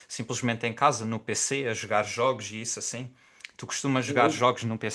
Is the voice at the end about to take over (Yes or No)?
No